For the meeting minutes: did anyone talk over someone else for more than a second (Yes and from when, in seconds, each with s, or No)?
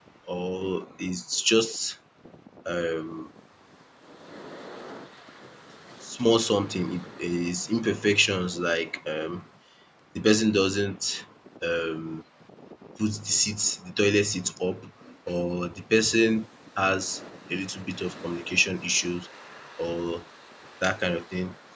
No